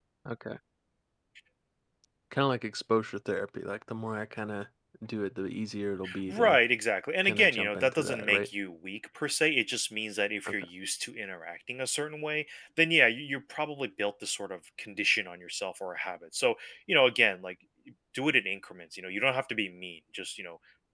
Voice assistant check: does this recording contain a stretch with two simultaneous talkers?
Yes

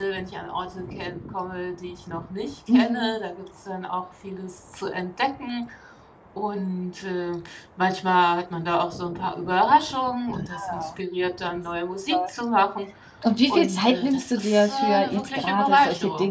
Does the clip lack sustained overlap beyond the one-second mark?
No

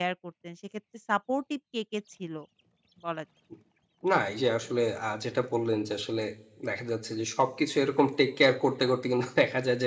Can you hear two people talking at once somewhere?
No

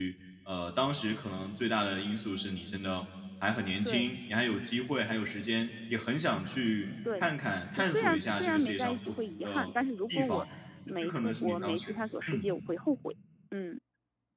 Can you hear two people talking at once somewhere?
Yes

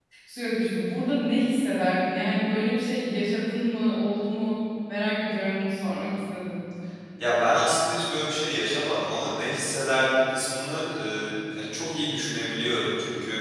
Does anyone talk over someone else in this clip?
No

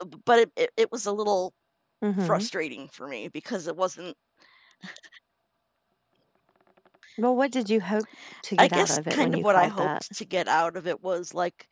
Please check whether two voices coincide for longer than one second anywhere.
Yes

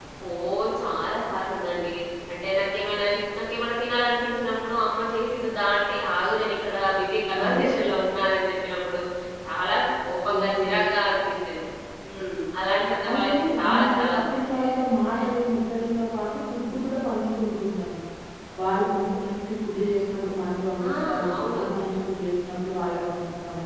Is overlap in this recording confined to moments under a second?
No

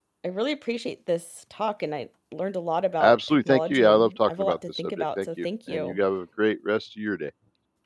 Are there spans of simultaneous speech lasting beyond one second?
Yes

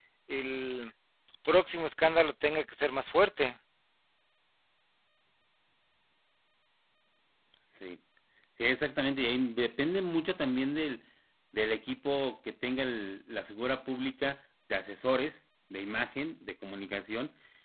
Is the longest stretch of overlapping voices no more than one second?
Yes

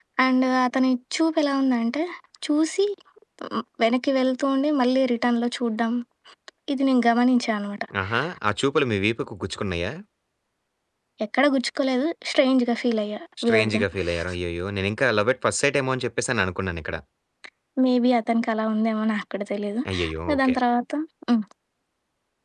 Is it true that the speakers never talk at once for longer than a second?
Yes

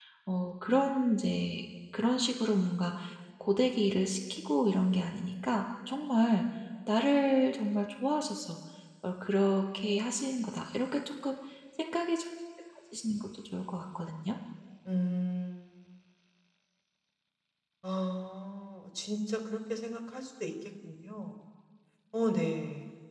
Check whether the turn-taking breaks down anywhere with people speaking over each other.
No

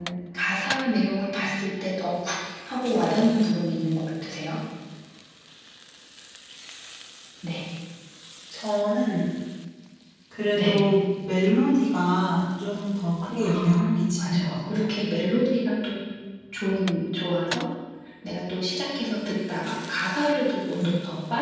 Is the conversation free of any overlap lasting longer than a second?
No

